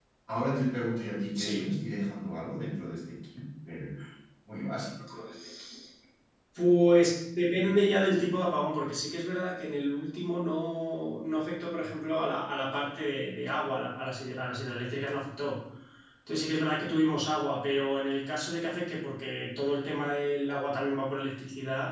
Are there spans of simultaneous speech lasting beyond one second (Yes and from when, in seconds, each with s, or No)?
No